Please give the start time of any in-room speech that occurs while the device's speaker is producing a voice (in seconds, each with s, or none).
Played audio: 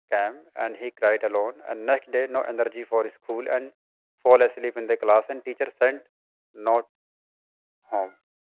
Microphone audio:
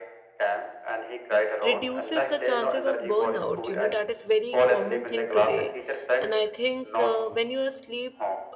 1.6 s